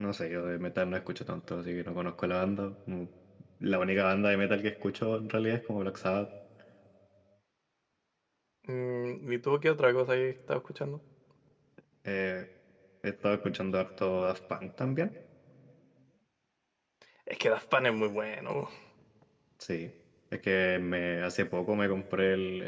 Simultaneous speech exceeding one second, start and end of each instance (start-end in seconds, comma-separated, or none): none